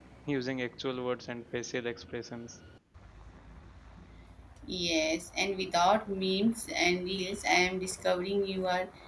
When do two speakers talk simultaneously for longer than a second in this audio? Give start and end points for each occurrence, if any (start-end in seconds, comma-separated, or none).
none